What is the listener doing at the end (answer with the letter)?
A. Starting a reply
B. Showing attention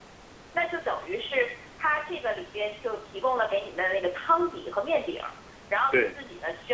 B